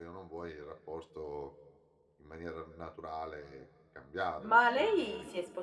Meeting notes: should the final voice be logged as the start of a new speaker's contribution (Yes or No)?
Yes